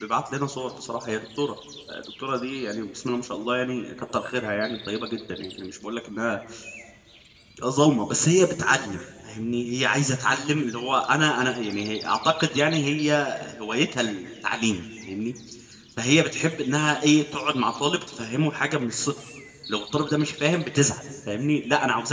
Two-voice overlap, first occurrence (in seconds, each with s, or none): none